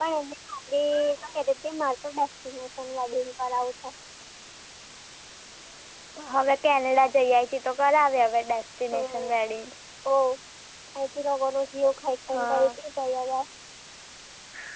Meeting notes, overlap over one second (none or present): none